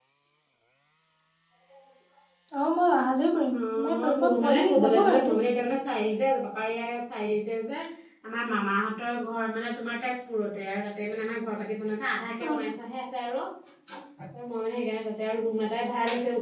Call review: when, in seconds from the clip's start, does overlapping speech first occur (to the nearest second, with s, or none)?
4 s